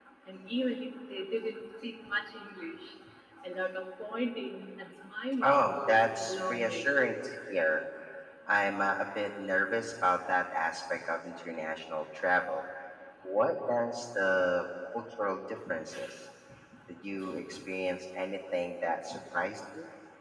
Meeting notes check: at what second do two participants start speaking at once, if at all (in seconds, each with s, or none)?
5.4 s